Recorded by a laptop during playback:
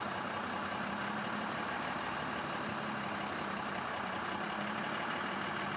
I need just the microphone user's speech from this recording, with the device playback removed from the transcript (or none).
none